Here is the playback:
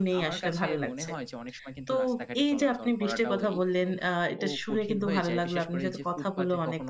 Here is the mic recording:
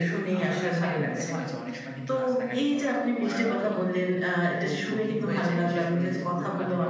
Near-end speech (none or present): none